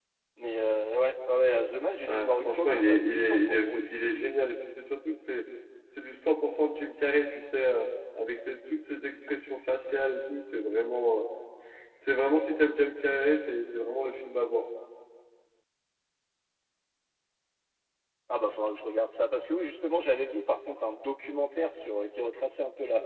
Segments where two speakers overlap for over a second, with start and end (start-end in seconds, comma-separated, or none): 2.1-4.3